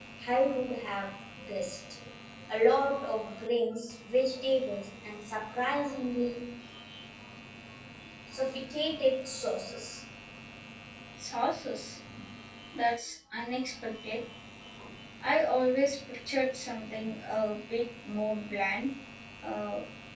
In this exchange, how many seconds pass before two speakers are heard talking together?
none

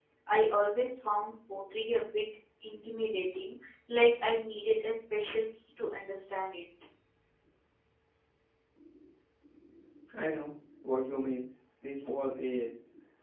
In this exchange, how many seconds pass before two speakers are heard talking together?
none

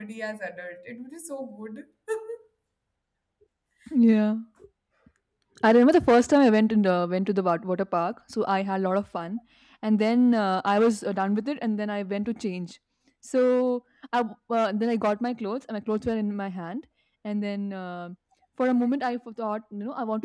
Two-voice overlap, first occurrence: none

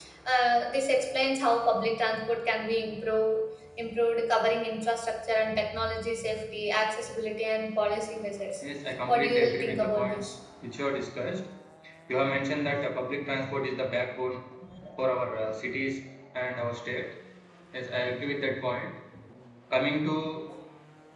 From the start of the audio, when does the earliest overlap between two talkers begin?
9.1 s

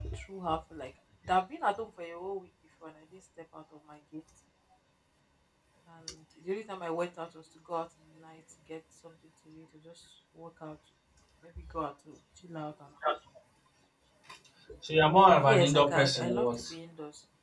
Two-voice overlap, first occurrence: 15.5 s

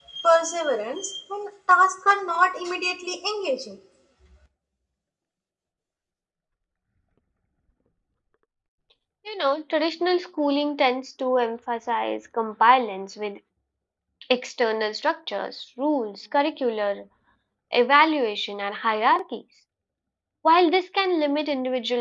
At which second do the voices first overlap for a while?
none

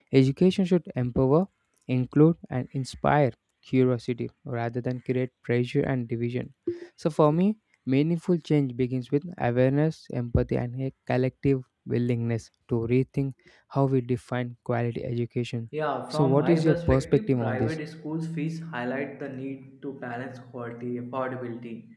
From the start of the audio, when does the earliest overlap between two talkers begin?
16.1 s

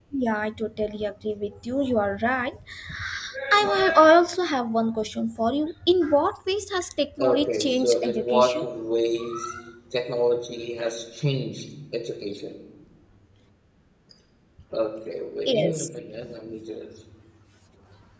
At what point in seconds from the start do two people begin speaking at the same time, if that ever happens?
7.2 s

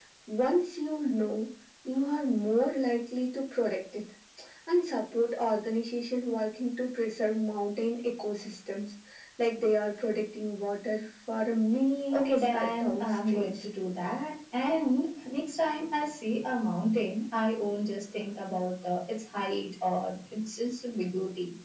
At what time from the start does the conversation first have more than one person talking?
12.1 s

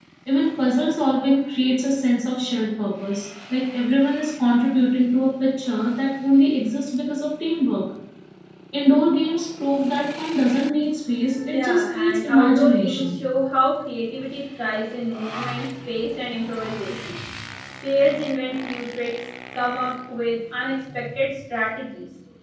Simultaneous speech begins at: 11.4 s

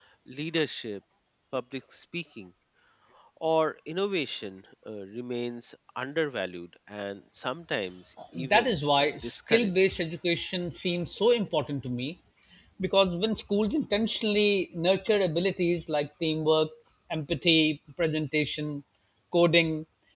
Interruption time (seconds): 8.3 s

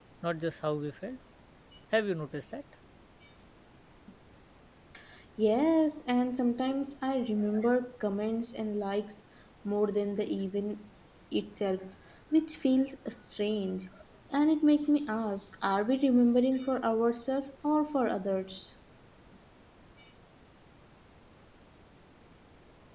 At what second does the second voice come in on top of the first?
none

